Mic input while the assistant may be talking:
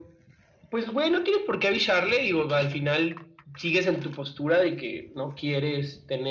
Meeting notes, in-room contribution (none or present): none